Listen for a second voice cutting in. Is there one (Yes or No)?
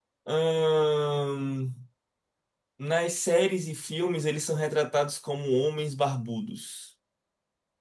No